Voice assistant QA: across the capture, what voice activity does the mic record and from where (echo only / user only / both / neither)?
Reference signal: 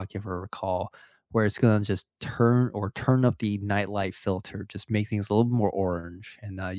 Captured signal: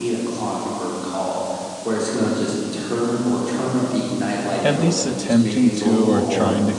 both